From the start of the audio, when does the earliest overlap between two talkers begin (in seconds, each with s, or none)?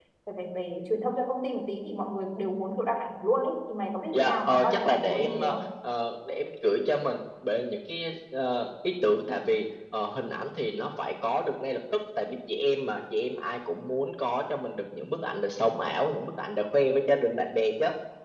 4.1 s